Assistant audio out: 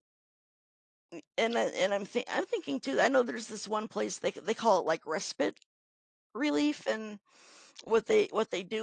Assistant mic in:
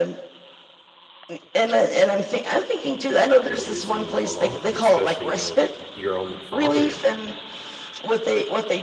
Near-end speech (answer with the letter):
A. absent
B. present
B